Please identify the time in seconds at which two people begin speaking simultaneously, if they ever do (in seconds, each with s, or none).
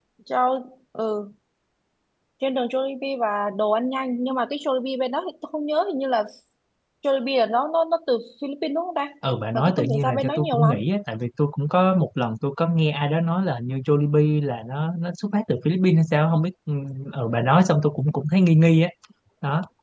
9.5 s